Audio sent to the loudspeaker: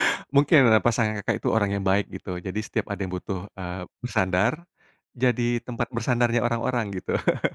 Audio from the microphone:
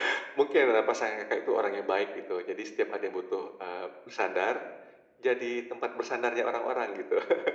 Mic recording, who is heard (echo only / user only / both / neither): echo only